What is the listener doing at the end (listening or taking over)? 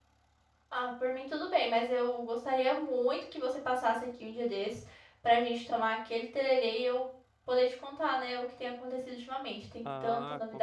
taking over